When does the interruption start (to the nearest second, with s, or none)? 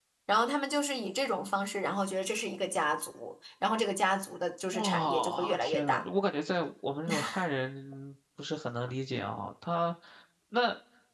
5 s